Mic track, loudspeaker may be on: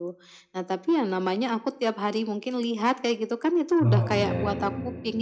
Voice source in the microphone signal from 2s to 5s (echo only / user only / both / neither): both